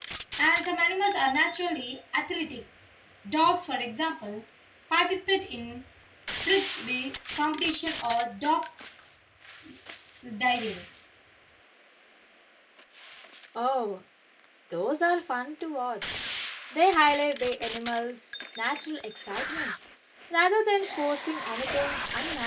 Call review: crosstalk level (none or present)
none